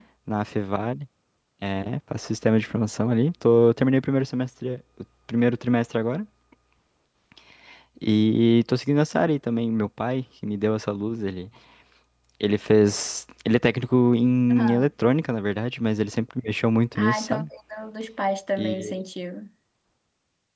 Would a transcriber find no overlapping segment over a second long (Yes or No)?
Yes